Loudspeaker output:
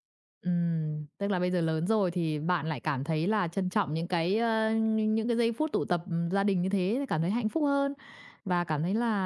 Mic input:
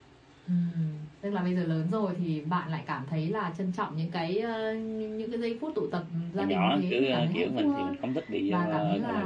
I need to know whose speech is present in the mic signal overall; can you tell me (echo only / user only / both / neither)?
both